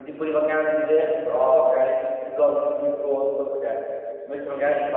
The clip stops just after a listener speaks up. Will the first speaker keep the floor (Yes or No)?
Yes